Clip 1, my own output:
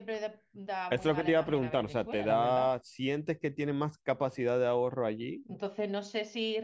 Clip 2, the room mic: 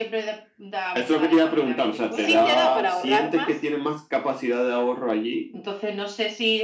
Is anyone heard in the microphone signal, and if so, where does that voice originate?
both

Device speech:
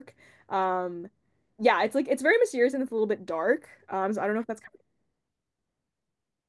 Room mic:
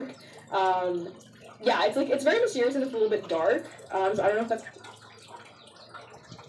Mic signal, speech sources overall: echo only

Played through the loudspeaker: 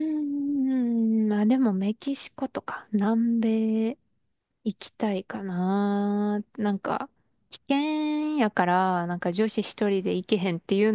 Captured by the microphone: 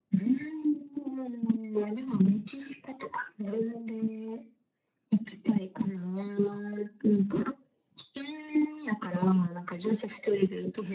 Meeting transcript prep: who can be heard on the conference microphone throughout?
echo only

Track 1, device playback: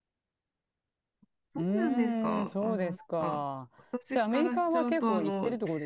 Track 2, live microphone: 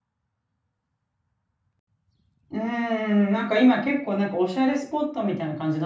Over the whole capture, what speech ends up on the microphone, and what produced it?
user only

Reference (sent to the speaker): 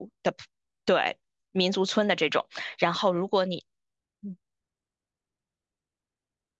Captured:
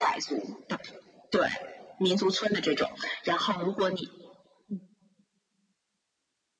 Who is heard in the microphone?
echo only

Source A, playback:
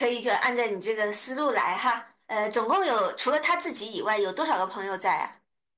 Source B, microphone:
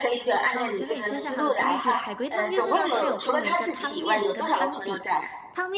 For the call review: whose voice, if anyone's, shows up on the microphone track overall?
both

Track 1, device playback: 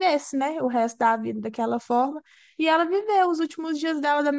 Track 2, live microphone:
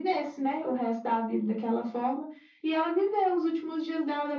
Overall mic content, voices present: echo only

